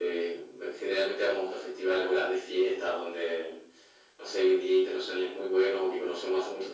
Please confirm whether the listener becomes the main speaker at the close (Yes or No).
No